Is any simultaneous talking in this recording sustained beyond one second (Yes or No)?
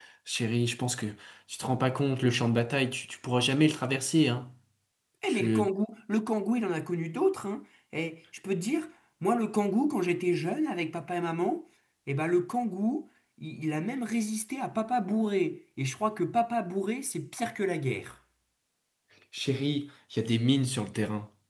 No